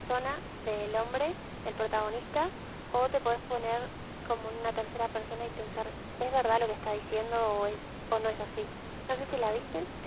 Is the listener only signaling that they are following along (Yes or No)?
No